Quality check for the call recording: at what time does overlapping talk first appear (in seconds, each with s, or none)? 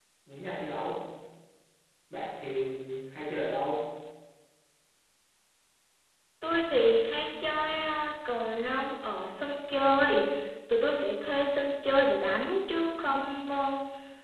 none